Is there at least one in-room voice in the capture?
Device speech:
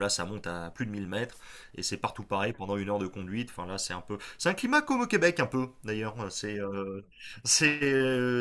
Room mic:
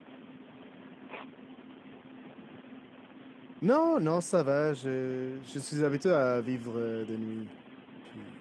Yes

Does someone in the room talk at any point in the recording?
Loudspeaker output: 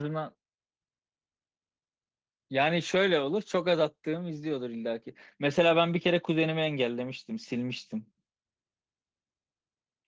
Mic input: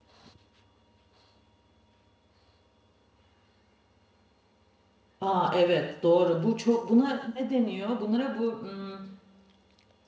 Yes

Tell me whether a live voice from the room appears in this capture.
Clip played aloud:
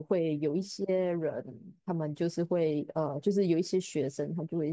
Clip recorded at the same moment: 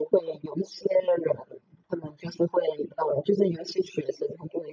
No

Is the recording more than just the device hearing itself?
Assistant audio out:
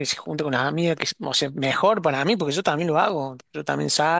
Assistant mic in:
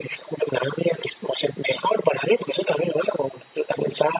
No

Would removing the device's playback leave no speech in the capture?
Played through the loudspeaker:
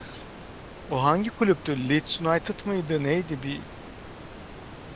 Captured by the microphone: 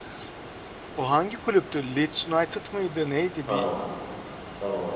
No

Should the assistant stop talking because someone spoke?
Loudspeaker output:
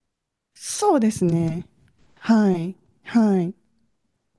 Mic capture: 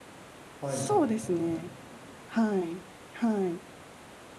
Yes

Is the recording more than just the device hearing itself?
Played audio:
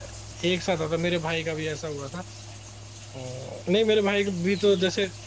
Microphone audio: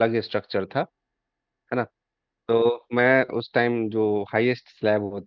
Yes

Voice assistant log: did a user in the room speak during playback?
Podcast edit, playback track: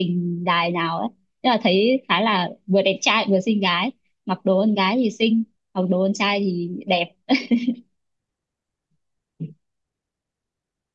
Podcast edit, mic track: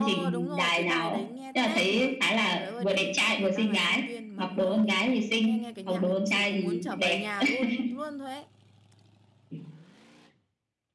Yes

